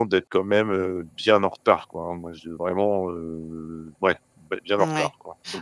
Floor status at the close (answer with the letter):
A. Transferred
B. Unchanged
A